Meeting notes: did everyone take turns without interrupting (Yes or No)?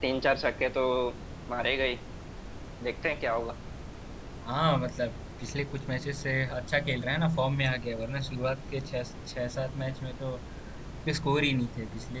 Yes